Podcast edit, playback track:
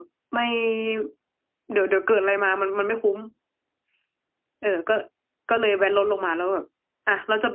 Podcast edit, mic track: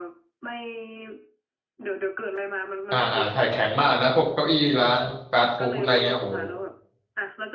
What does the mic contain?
both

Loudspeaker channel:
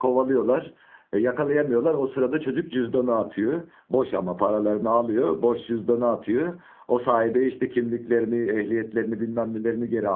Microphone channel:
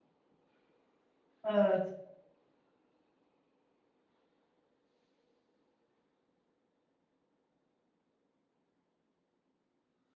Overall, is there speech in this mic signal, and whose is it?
user only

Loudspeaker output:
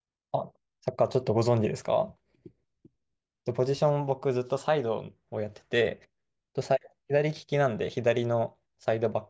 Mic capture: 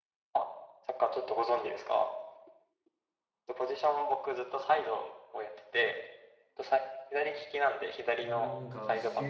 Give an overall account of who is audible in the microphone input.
both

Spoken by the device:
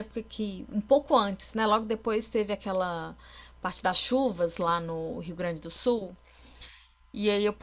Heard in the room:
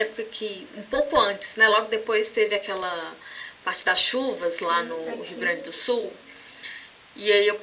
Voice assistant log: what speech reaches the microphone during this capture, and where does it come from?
both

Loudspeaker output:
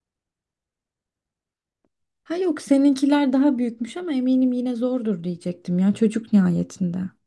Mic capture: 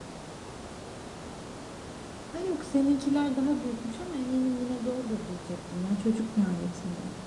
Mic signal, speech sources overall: echo only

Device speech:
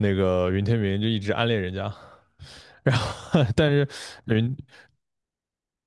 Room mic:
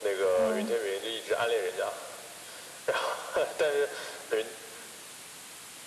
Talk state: both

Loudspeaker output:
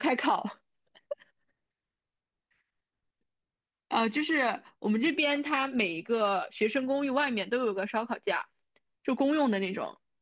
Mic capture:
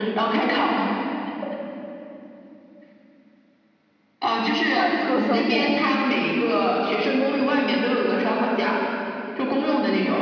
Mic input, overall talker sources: both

